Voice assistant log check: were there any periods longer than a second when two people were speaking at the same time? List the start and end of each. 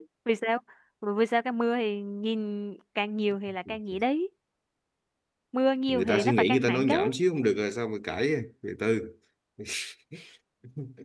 5.9-7.1

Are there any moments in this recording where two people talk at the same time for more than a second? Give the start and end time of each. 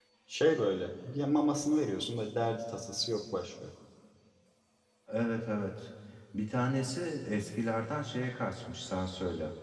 none

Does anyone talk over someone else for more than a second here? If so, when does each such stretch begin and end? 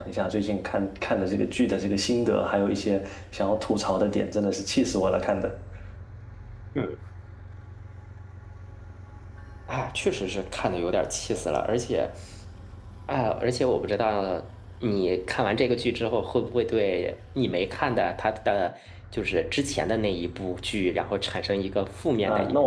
none

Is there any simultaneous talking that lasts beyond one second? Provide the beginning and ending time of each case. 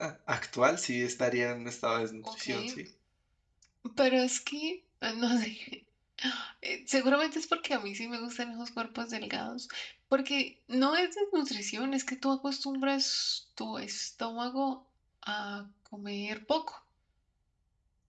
none

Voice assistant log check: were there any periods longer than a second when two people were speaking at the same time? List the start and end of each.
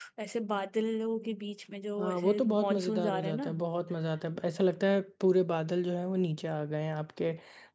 2.0-3.5

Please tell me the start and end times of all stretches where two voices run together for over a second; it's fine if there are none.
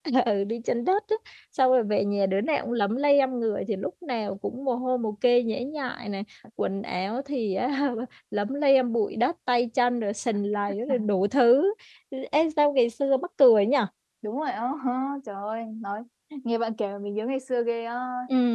none

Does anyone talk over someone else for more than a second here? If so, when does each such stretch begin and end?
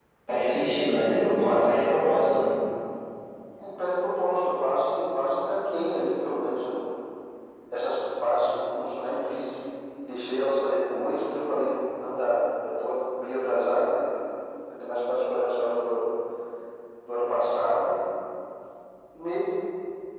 none

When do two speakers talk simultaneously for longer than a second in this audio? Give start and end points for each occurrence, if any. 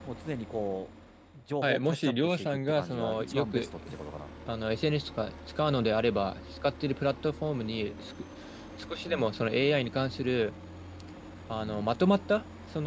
1.6-4.0

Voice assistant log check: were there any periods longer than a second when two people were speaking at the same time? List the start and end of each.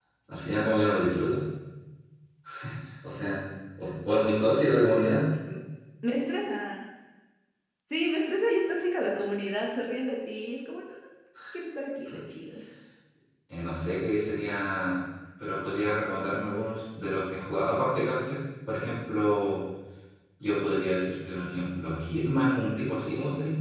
none

